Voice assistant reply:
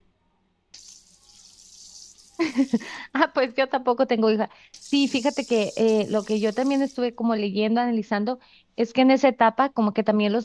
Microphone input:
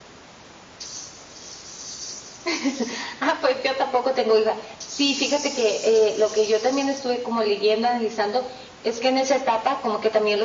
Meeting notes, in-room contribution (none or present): none